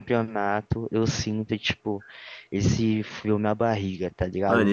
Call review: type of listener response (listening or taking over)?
taking over